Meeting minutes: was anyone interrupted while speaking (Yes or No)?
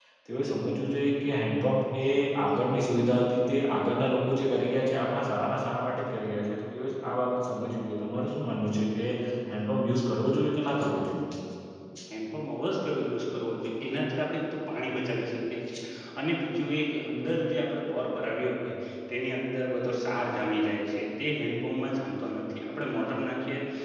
No